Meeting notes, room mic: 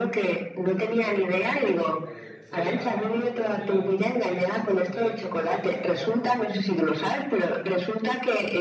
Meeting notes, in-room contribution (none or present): present